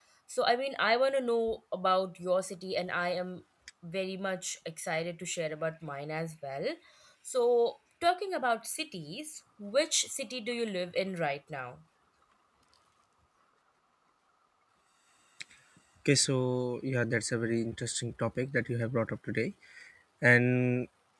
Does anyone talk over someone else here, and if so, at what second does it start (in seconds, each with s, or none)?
none